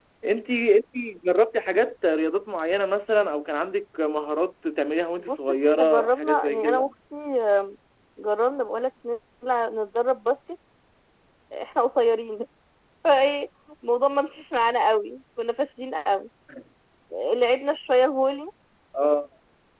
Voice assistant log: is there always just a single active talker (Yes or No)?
No